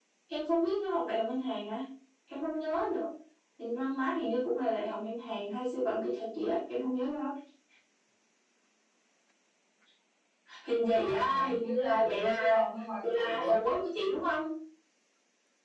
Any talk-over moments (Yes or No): Yes